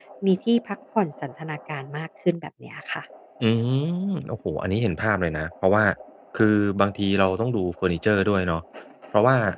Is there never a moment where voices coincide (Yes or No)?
Yes